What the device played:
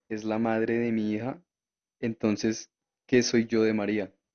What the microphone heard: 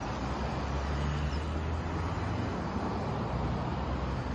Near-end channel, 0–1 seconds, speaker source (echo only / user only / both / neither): neither